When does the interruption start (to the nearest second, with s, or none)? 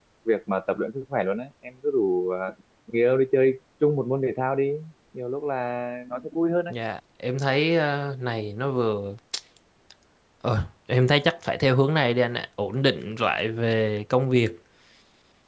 none